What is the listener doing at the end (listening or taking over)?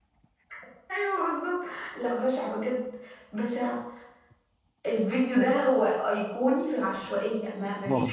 listening